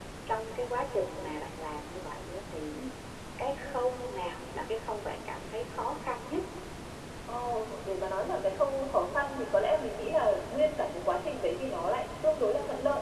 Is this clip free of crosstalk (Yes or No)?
Yes